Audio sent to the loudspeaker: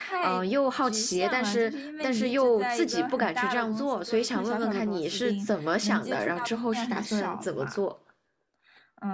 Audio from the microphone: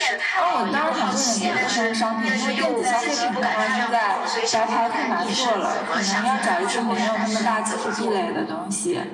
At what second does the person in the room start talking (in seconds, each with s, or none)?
0.3 s